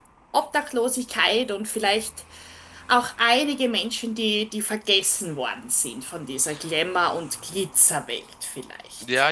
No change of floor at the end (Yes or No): No